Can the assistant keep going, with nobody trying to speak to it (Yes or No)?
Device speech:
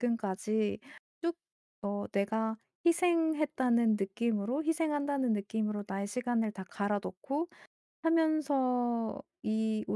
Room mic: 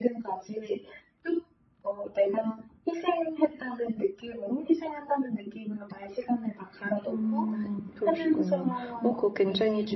No